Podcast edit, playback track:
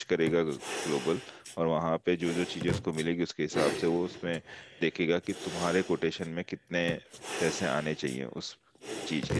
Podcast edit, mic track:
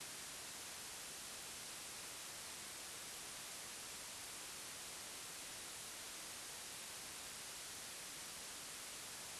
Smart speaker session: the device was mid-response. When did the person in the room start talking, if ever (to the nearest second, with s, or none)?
none